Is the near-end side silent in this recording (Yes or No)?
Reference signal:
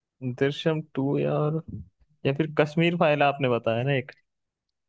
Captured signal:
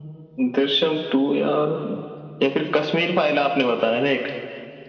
Yes